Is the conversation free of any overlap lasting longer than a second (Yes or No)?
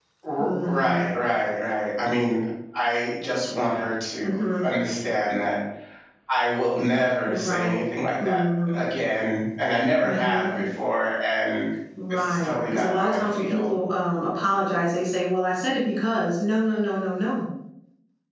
No